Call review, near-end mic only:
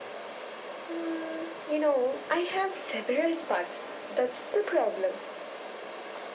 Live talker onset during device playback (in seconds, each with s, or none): none